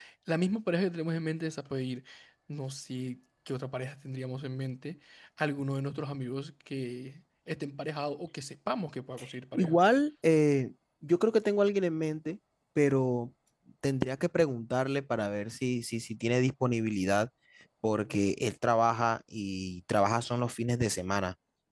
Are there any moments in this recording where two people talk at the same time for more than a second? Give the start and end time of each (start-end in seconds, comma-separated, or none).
none